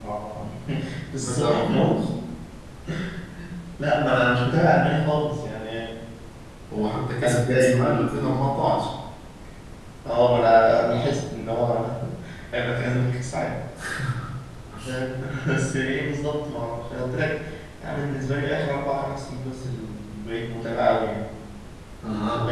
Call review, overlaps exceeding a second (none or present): present